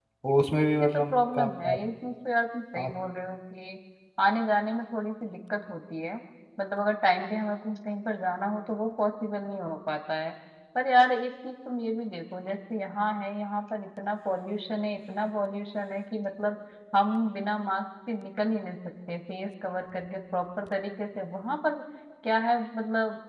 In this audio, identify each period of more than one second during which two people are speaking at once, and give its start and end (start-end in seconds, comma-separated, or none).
0.5-1.8